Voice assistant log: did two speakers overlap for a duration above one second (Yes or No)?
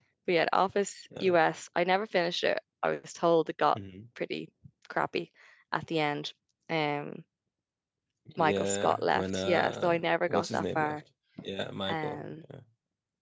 Yes